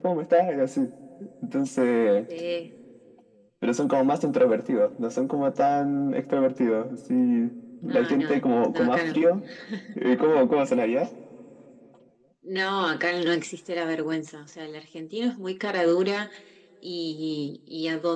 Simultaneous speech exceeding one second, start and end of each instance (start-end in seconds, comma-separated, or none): 7.9-9.2